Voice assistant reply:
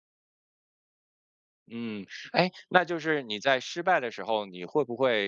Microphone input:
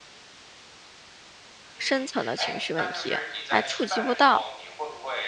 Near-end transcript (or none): 深层的情绪问题，还触及不到。